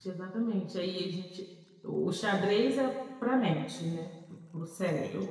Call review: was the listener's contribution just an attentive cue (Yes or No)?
Yes